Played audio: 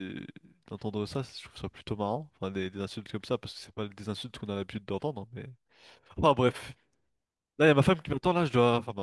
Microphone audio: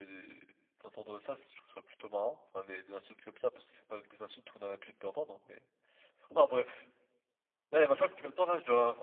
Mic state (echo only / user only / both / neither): echo only